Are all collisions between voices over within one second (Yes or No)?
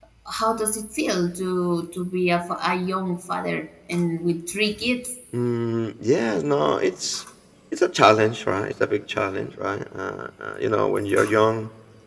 Yes